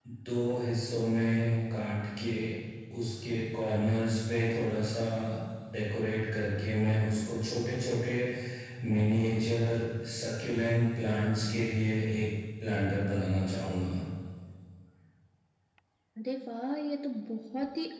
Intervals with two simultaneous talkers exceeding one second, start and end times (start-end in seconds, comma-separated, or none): none